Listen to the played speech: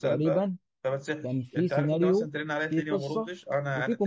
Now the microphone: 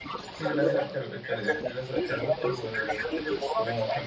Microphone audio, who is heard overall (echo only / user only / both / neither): both